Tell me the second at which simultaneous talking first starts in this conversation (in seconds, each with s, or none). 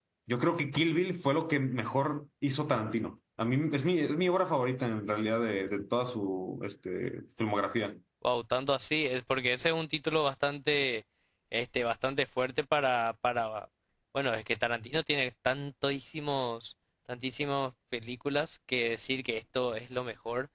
none